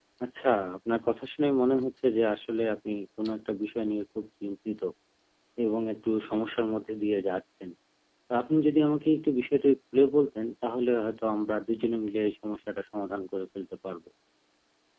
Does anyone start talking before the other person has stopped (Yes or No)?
No